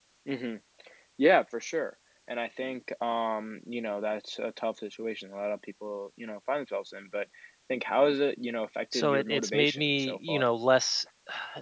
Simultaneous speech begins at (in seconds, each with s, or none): 8.9 s